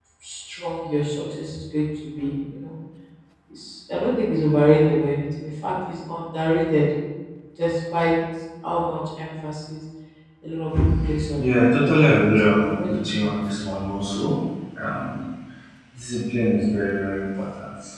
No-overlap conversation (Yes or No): No